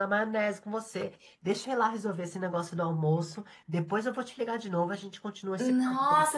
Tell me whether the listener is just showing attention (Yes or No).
No